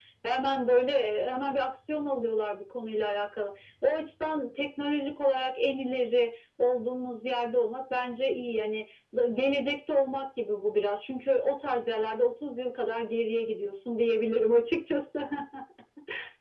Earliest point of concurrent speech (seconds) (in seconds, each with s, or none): none